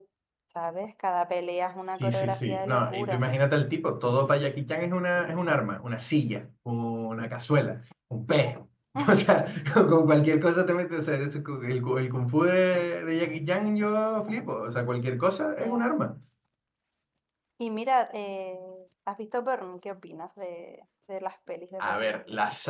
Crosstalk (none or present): present